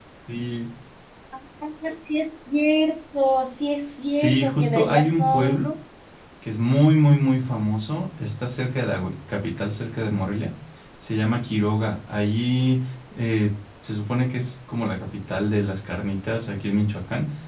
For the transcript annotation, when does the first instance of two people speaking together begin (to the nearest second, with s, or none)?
4 s